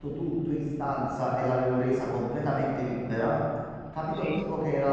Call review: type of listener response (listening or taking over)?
listening